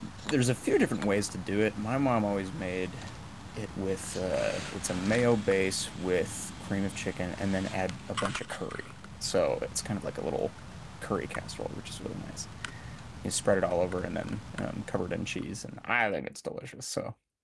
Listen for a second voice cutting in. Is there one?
No

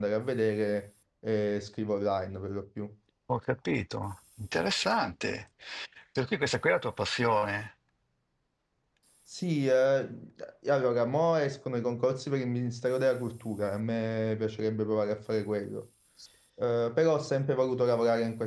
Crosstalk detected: No

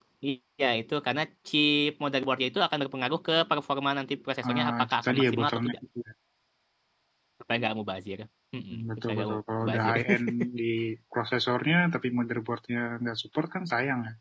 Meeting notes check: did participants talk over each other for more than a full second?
Yes, from 4.5 s

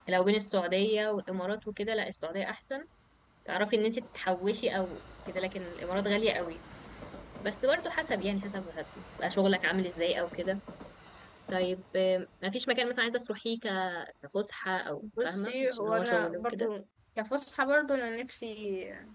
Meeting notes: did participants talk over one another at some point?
Yes, from 15.0 s

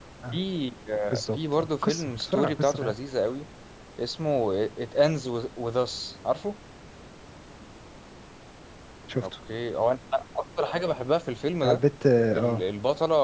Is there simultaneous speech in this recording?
Yes, from 1.3 s

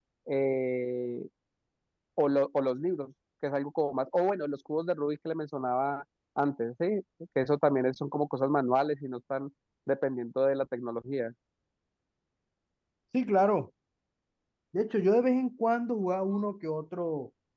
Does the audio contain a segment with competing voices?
No

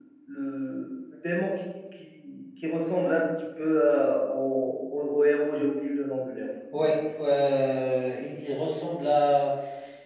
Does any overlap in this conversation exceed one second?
No

